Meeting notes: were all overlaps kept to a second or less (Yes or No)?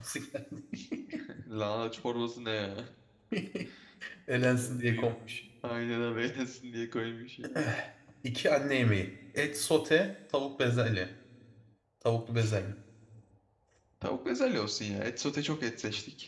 Yes